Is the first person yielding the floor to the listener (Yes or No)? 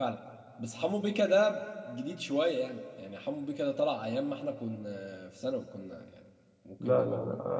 Yes